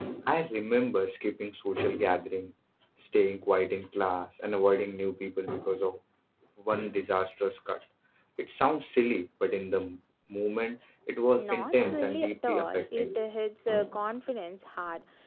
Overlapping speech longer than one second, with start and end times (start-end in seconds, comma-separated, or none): 11.4-13.1